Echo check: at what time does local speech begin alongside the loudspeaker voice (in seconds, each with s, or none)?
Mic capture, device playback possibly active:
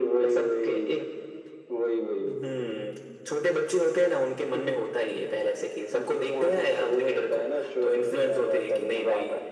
none